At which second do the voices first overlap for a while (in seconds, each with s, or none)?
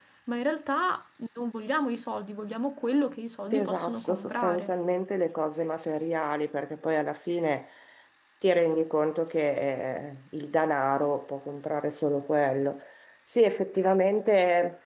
3.5 s